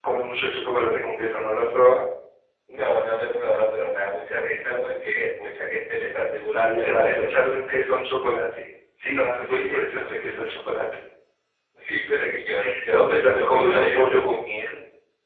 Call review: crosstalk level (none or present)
present